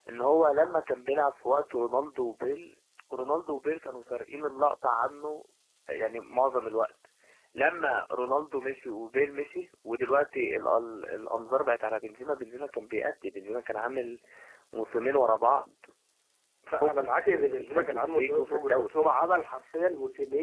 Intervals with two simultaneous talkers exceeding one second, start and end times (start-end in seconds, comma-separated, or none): 16.7-18.9